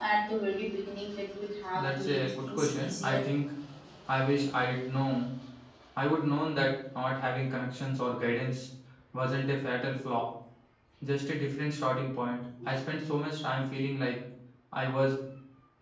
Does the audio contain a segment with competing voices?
Yes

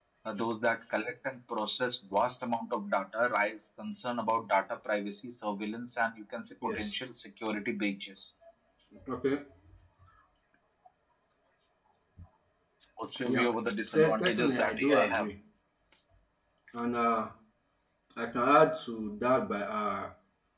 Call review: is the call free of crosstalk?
No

